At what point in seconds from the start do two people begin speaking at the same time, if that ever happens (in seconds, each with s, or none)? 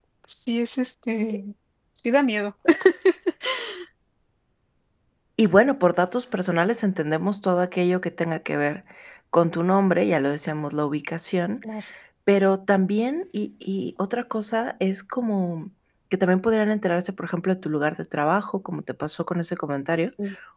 none